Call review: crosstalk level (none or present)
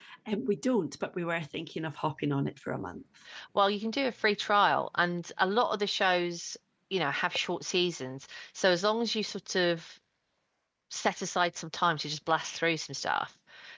none